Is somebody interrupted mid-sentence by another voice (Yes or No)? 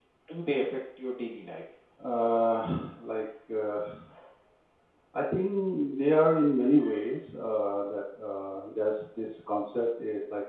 No